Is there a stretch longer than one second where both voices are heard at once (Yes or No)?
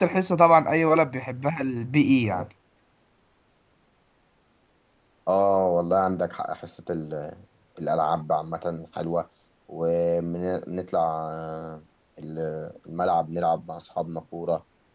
No